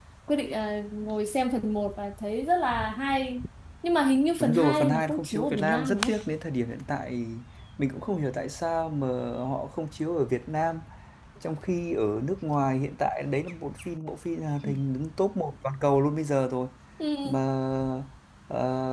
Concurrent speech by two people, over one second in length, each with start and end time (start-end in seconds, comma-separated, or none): 4.4-6.1